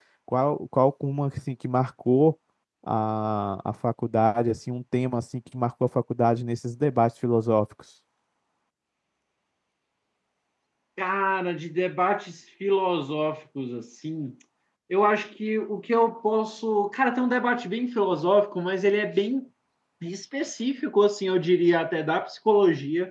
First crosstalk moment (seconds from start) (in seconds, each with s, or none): none